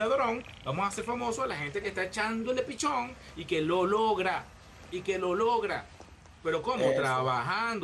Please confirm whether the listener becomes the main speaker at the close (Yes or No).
No